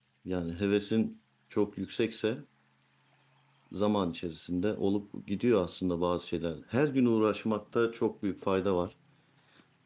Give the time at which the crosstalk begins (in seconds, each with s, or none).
none